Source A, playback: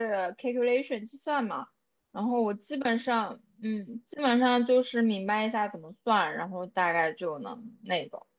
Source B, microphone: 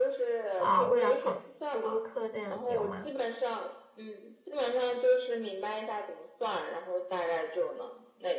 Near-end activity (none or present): present